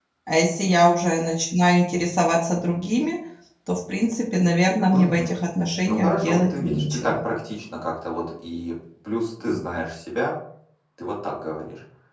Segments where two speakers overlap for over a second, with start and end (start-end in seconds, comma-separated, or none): 5.9-7.1